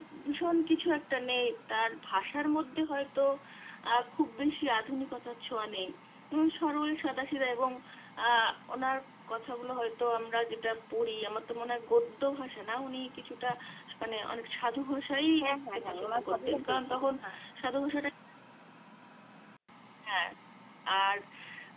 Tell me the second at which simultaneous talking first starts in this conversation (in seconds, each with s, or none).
15.4 s